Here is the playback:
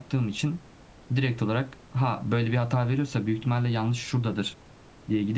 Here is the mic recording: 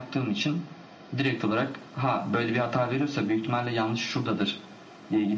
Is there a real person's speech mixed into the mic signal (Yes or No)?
No